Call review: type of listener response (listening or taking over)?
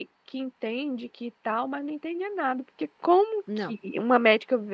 listening